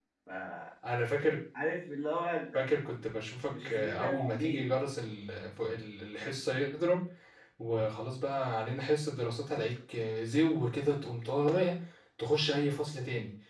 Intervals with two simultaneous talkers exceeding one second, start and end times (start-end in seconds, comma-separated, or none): 3.5-4.8